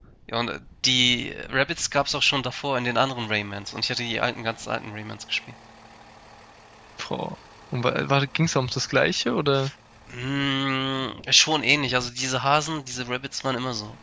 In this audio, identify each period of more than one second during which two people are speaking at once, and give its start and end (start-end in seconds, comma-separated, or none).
none